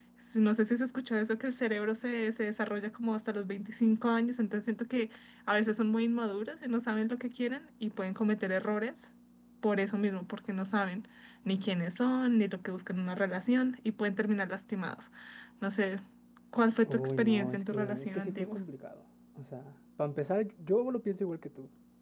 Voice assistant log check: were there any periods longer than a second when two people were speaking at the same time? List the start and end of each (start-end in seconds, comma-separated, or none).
16.9-18.6